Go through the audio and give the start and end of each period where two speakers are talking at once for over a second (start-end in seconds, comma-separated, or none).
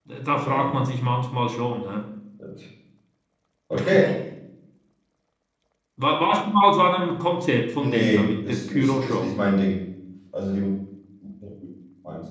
7.8-9.3